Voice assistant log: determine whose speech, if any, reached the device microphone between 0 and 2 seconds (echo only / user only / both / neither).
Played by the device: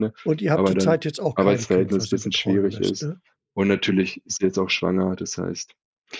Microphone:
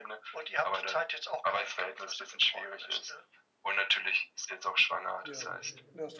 echo only